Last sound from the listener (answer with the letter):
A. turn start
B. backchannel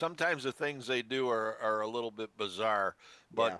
B